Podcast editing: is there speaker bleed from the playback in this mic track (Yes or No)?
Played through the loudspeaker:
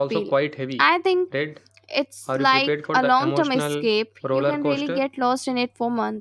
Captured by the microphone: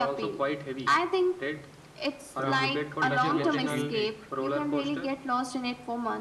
Yes